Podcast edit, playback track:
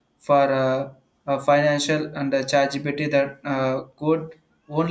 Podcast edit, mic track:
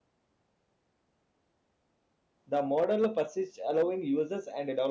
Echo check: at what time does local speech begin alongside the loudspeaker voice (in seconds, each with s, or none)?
2.5 s